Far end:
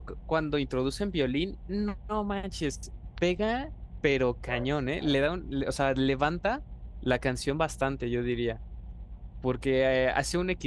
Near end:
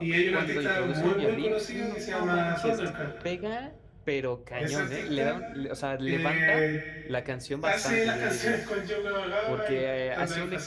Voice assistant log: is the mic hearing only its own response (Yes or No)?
No